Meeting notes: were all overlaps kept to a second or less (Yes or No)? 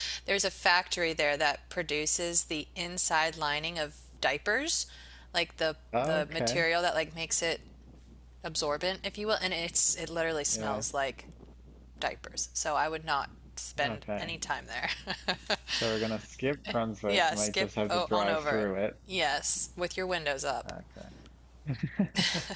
No